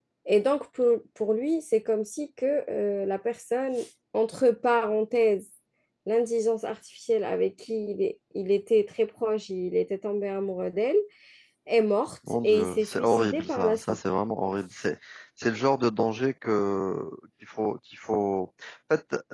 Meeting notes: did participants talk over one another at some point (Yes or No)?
Yes